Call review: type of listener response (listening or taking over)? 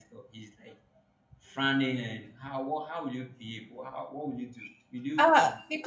taking over